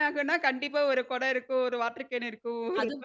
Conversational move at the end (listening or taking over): listening